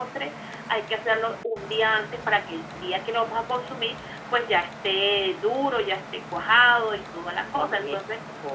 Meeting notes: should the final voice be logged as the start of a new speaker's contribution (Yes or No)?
Yes